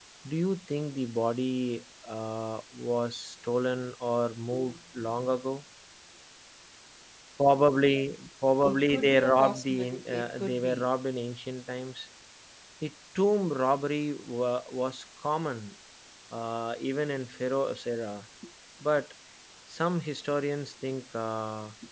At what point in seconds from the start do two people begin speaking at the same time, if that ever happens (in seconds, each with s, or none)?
8.6 s